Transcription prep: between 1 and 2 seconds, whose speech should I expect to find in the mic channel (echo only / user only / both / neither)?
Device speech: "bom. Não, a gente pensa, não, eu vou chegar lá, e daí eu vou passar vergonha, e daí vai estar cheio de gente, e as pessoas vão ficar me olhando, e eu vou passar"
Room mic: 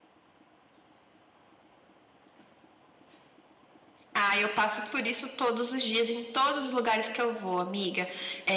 neither